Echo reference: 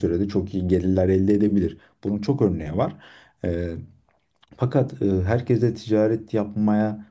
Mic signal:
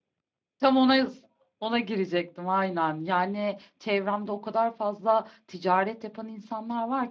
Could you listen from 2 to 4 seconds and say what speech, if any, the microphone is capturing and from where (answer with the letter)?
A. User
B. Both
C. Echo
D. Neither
A